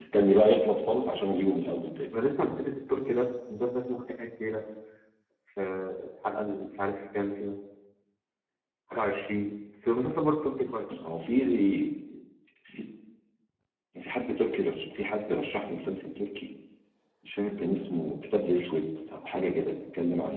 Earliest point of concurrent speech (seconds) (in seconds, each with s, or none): none